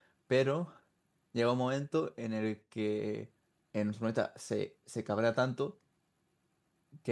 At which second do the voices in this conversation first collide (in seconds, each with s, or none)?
none